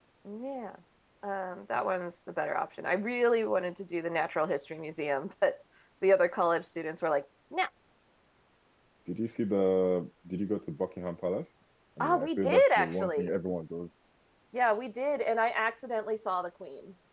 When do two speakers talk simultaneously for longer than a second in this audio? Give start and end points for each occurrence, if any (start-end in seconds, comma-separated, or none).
12.0-13.3